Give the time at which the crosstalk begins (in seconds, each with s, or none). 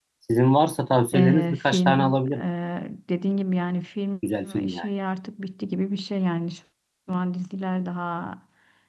1.1 s